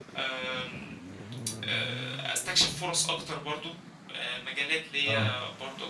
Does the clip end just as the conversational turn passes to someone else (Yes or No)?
No